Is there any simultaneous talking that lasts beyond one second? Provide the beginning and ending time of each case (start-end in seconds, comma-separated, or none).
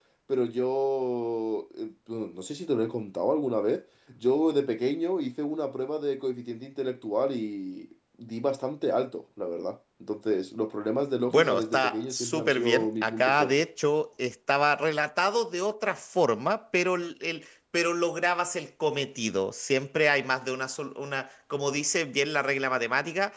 11.3-13.5